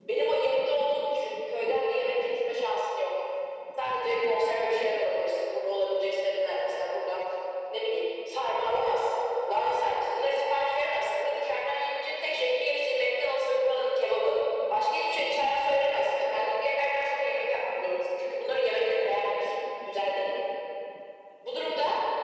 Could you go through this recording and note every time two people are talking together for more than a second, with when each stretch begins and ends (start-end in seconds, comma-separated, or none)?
none